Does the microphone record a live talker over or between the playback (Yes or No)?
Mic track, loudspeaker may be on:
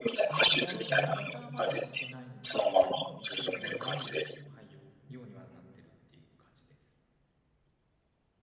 Yes